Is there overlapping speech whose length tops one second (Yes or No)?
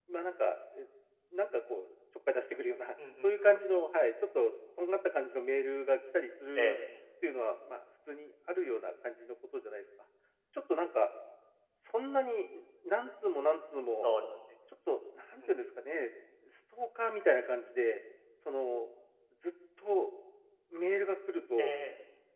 No